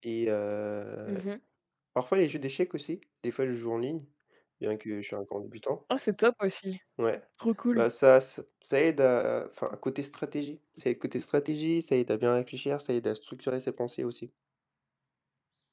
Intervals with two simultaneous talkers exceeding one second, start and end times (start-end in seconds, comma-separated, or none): none